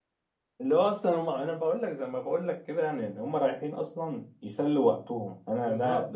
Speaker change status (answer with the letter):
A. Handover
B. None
A